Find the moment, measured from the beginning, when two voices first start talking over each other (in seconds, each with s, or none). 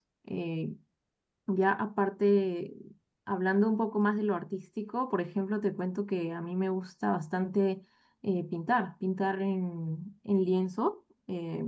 none